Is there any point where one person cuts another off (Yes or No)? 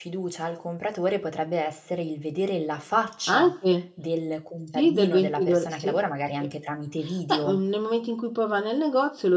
Yes